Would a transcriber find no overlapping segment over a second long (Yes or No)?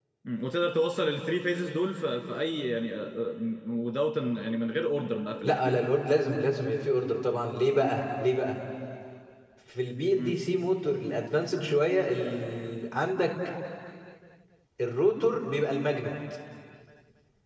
Yes